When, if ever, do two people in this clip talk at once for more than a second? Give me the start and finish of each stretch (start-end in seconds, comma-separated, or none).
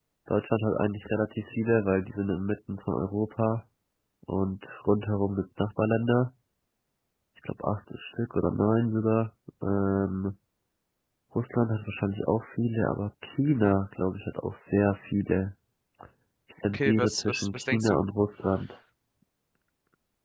16.7-18.0